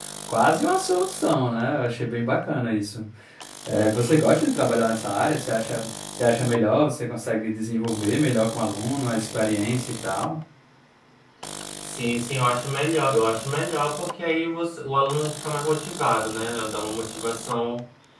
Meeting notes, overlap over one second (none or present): none